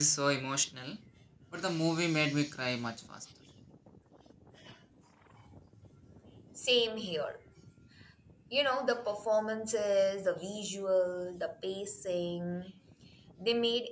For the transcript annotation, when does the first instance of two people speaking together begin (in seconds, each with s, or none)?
none